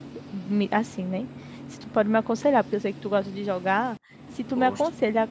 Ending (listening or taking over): listening